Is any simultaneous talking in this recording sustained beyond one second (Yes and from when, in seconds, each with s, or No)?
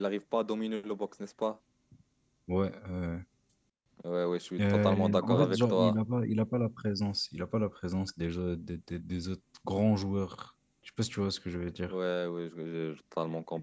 Yes, from 4.6 s